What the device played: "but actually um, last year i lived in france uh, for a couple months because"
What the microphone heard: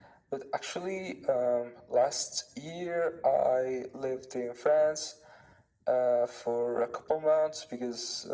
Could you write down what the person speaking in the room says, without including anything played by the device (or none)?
none